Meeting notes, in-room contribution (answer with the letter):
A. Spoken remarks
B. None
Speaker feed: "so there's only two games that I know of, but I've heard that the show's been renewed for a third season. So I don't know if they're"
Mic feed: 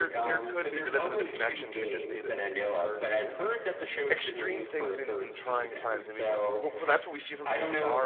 A